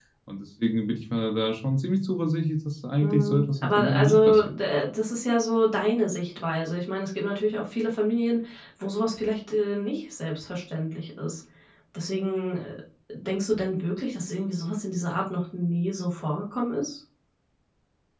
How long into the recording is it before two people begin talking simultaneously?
3.0 s

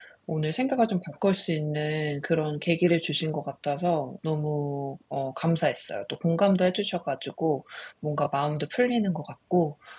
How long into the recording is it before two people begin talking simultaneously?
none

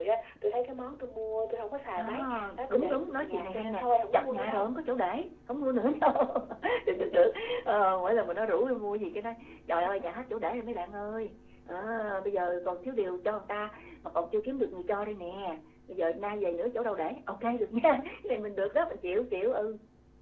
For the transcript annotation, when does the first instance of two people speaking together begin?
2.0 s

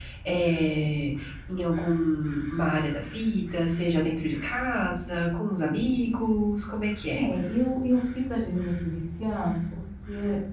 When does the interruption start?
none

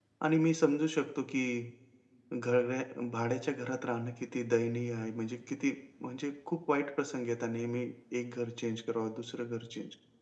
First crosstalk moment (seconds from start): none

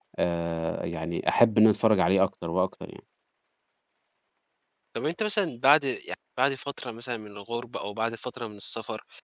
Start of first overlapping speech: none

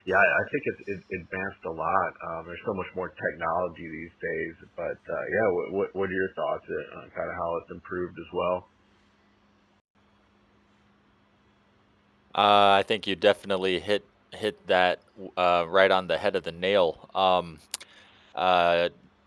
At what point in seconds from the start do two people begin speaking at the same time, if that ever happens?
none

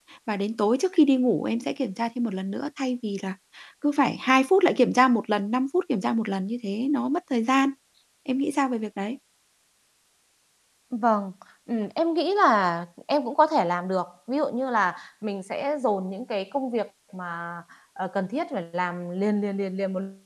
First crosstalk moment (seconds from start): none

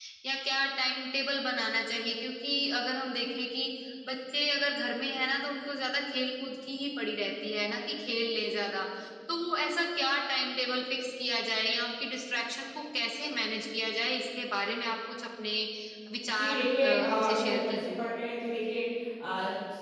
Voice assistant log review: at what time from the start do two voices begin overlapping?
16.4 s

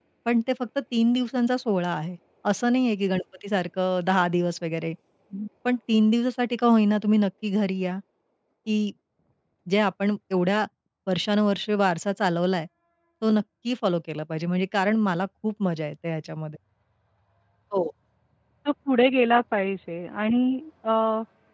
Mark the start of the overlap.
none

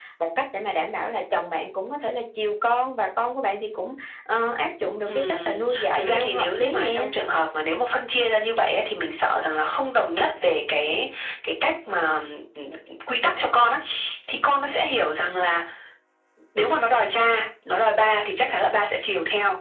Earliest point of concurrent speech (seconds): 5.1 s

